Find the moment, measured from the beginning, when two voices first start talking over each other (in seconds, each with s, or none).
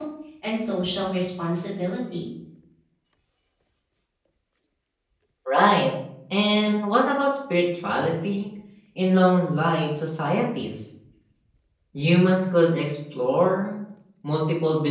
none